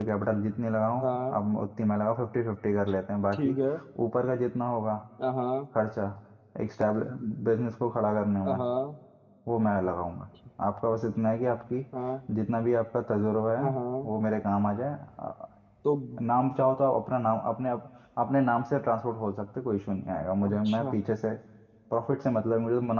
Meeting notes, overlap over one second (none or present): none